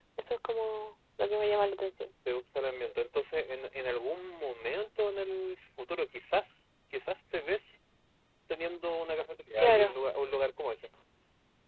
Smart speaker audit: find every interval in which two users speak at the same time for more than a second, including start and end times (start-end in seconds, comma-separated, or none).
none